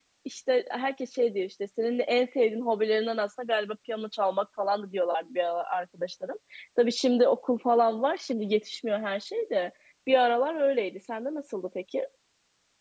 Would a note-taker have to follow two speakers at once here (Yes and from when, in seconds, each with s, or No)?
No